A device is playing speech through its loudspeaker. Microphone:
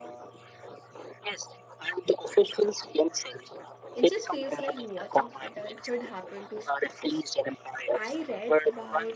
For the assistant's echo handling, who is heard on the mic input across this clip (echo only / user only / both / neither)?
both